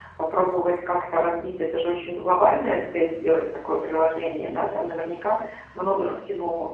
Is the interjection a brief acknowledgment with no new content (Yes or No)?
Yes